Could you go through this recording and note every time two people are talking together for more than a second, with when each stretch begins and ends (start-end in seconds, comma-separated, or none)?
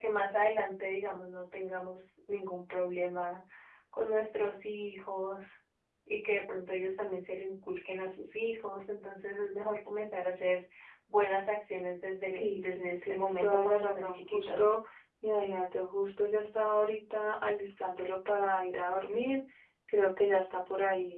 12.4-14.7